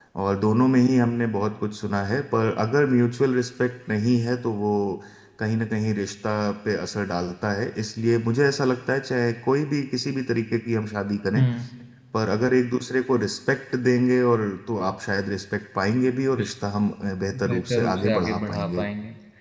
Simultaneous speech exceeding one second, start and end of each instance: 17.4-18.9

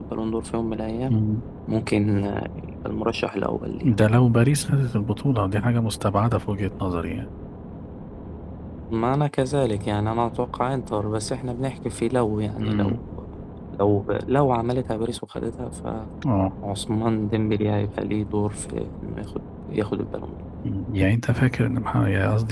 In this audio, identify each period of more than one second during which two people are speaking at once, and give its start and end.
none

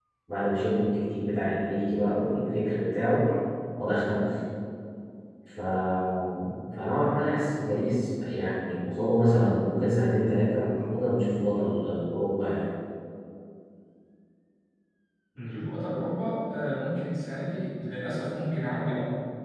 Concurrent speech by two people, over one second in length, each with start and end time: none

